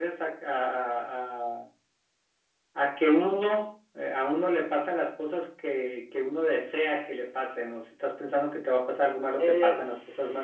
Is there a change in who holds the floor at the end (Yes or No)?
Yes